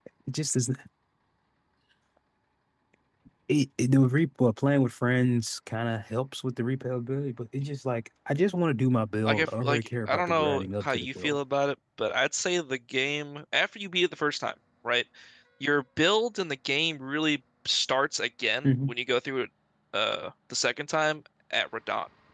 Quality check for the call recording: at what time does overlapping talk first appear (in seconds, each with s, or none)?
9.2 s